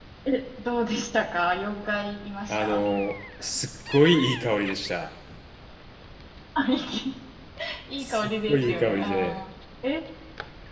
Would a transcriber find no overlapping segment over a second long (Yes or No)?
No